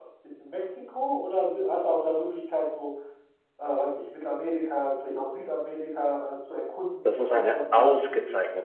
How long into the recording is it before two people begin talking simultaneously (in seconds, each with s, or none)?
7.0 s